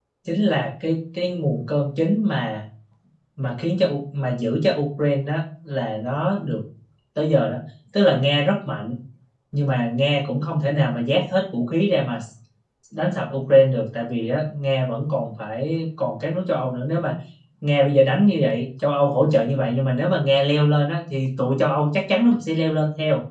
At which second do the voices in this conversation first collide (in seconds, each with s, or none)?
none